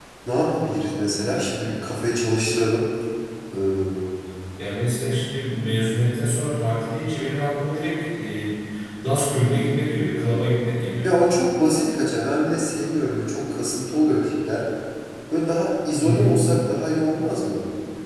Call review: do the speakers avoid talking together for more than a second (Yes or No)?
Yes